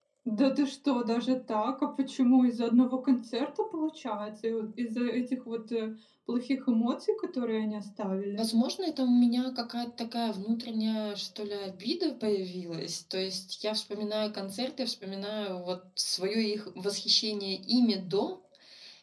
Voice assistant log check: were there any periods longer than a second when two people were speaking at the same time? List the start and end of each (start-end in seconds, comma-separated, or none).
none